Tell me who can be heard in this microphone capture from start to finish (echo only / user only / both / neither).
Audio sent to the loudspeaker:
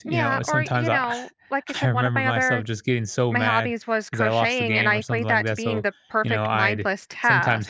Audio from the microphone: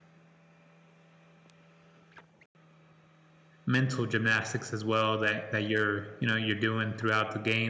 user only